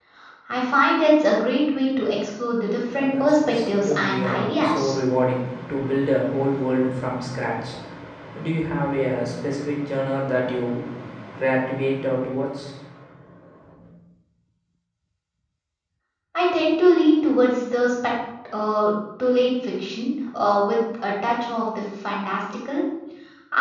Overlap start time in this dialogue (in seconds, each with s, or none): 2.7 s